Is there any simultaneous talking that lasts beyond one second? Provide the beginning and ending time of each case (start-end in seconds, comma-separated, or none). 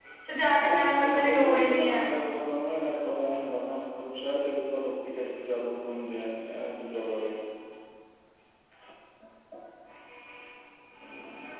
0.6-2.0